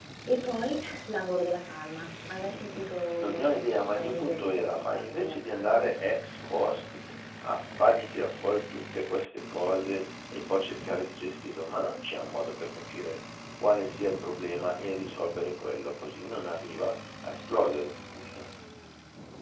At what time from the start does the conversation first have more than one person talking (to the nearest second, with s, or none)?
3 s